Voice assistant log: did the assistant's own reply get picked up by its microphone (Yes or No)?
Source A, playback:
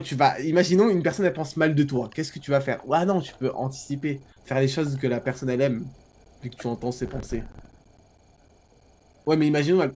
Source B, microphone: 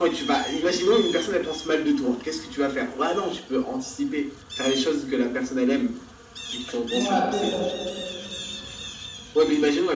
Yes